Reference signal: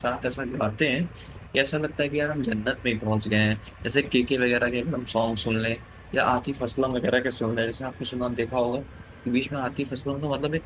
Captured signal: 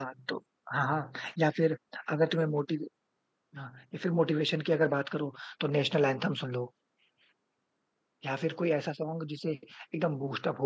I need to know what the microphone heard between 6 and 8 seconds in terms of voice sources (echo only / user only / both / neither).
user only